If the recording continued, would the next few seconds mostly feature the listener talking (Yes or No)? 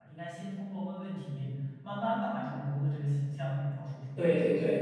Yes